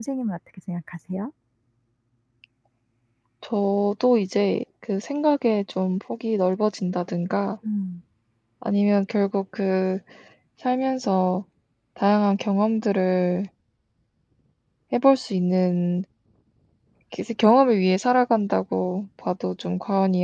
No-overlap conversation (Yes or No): Yes